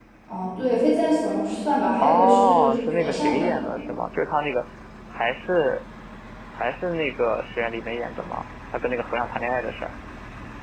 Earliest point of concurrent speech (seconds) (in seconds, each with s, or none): 2.0 s